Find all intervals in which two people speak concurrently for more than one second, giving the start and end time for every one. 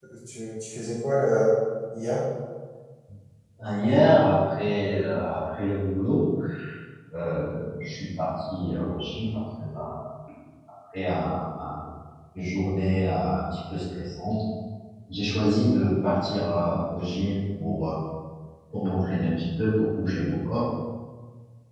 none

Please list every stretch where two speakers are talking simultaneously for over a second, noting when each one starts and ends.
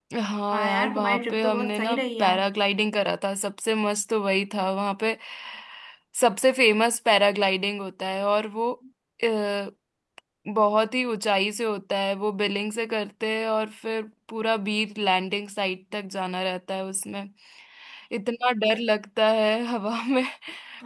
0.5-2.4

